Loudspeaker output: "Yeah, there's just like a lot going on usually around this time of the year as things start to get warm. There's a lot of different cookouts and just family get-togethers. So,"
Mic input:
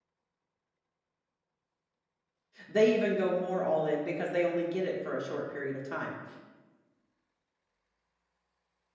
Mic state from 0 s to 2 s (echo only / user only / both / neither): neither